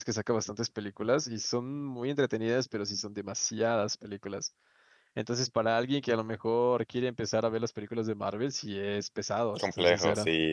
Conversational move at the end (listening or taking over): taking over